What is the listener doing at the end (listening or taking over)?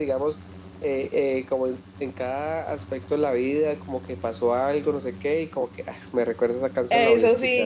taking over